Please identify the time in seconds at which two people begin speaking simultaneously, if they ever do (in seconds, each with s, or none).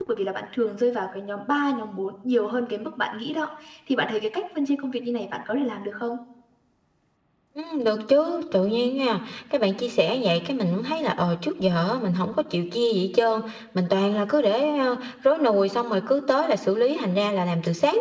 none